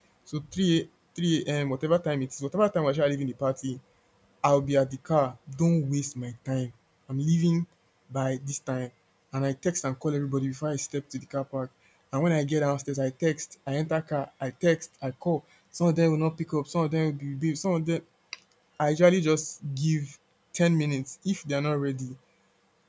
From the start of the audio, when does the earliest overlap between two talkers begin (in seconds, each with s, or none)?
none